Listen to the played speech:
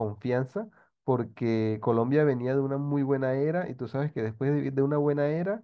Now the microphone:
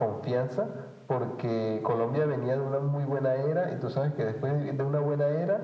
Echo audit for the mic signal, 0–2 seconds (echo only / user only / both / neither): echo only